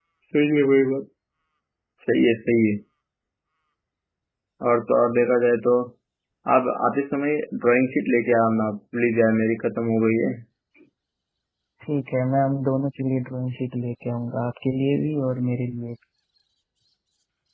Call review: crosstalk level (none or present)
none